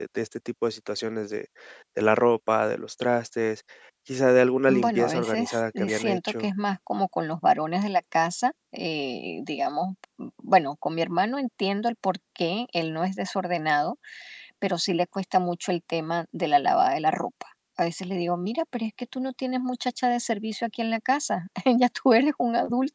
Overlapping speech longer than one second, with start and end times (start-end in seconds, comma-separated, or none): 4.7-6.5